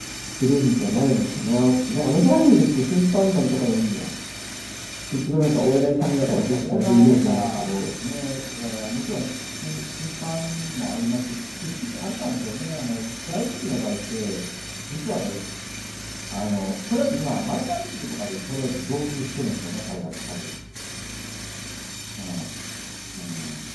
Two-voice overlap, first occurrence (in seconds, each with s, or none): 6.0 s